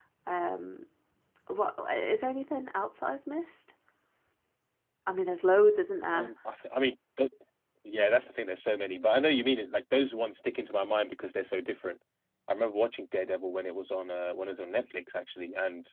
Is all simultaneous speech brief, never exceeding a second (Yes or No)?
Yes